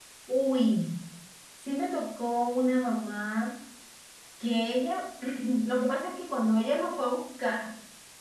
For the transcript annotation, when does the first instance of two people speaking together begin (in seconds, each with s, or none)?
none